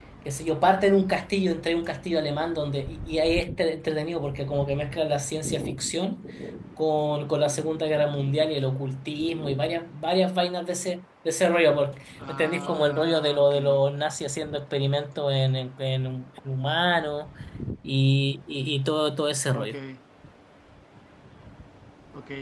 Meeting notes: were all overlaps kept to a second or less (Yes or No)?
No